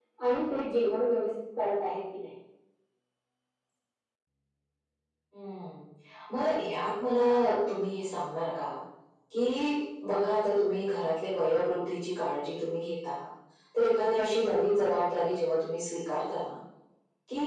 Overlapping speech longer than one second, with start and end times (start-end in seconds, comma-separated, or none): none